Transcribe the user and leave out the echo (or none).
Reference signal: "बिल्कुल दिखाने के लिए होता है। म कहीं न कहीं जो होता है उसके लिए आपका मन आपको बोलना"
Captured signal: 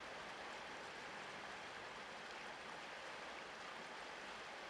none